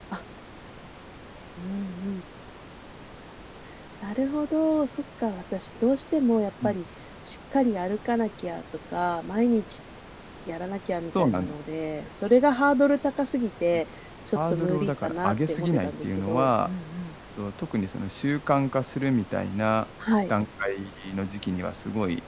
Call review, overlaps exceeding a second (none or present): present